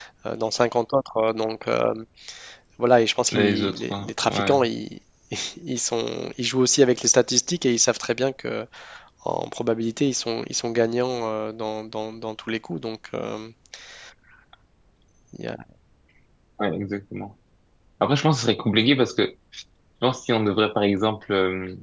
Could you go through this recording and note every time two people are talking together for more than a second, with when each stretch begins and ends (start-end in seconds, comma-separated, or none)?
3.3-4.6